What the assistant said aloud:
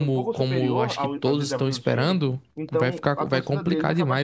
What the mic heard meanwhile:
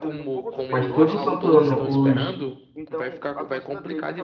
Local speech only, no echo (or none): Mas todo santo ano, os,